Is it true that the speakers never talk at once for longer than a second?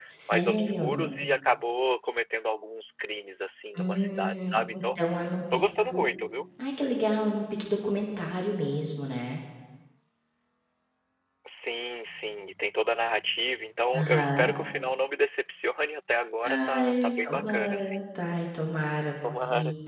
No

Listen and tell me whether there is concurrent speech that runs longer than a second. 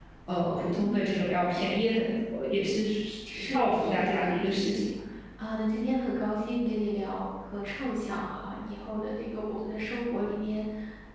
Yes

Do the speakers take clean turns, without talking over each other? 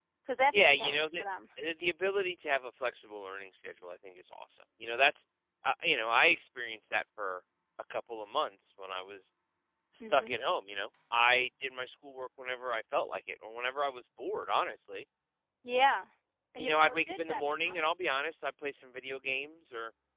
No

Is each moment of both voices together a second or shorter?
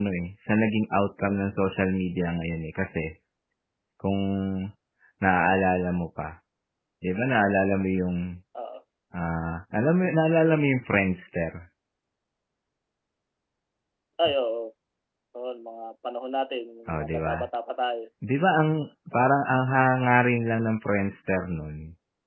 Yes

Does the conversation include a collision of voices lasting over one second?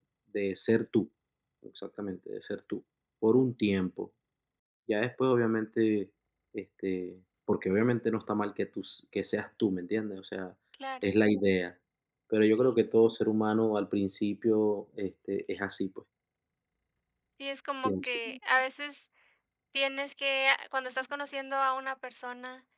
No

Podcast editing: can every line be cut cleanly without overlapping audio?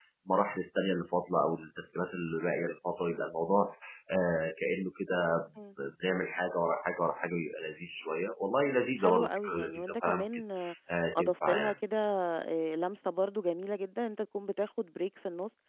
No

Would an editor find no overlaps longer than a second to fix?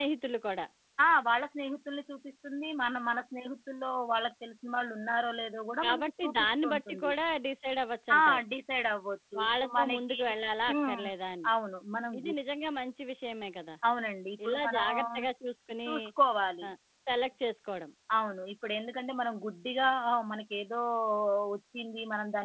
No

